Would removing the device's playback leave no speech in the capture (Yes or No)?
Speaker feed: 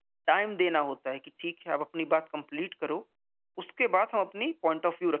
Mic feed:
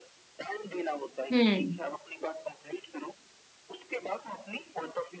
No